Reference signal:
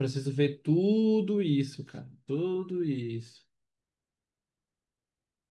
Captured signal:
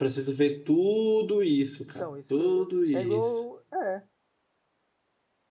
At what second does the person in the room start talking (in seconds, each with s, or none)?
1.9 s